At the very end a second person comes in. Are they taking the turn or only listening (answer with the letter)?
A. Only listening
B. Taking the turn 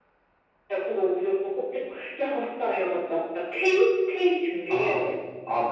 B